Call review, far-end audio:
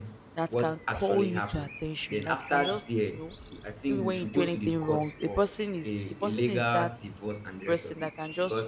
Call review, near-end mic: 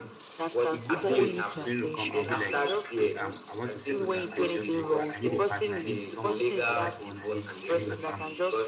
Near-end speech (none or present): present